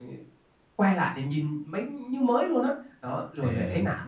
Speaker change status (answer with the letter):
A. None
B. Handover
A